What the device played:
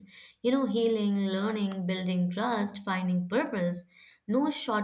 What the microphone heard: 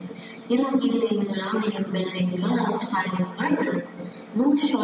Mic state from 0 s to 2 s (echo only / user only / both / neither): echo only